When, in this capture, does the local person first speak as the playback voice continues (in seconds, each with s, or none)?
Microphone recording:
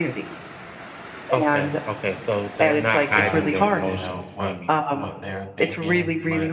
3.1 s